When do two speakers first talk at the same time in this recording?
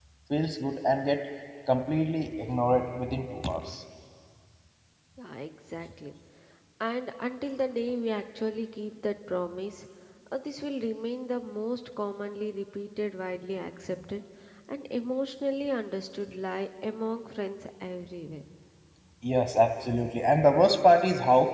none

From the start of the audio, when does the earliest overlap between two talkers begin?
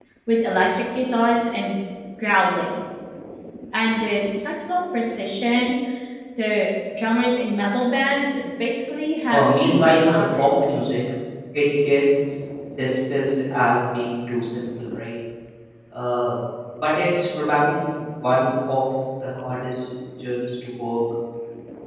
9.3 s

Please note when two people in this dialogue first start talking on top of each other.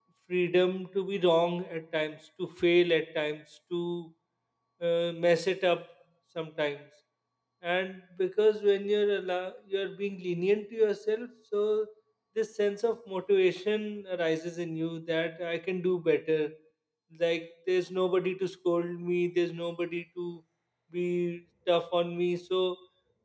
none

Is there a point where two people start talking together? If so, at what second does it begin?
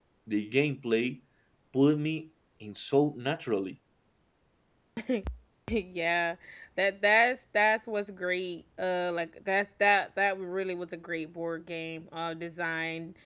none

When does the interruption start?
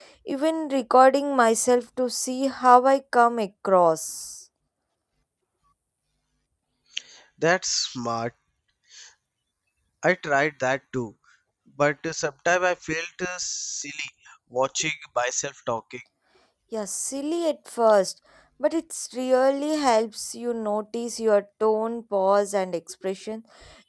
none

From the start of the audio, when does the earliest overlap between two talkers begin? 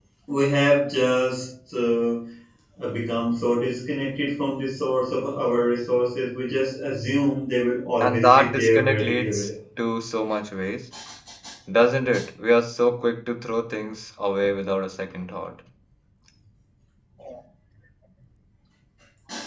8.0 s

